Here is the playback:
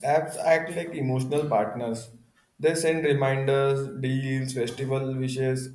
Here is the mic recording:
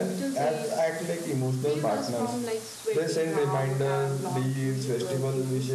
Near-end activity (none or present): present